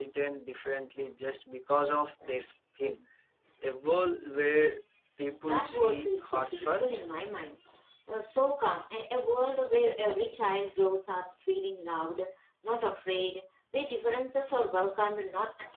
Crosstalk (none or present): present